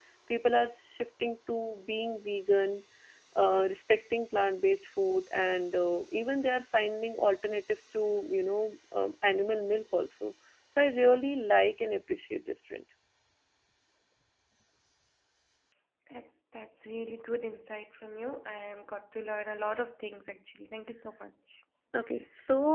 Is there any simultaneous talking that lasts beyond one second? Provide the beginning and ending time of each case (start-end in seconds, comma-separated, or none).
none